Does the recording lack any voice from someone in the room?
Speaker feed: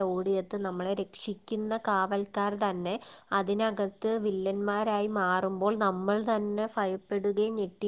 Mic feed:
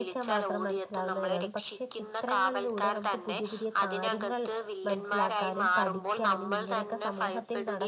No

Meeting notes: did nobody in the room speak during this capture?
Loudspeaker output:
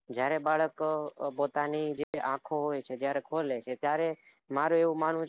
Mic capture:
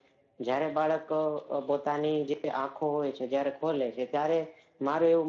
Yes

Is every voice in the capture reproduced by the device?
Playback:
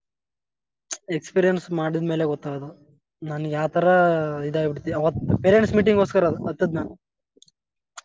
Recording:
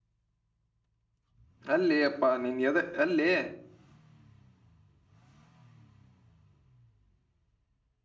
No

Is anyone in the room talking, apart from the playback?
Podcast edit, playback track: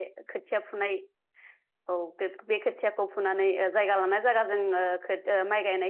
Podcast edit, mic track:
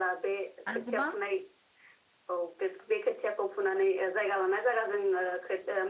Yes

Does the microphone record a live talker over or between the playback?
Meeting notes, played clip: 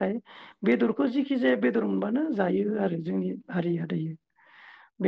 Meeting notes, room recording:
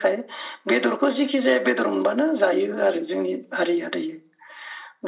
No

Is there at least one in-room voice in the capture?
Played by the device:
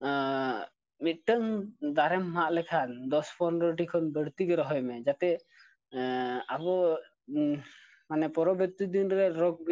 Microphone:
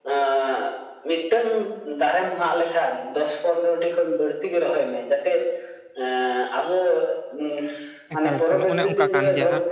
Yes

